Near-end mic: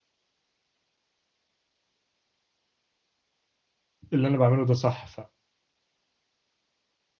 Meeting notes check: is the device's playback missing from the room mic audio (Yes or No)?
Yes